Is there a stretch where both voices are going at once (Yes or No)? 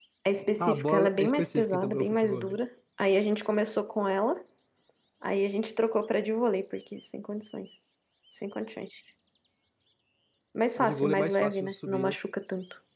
Yes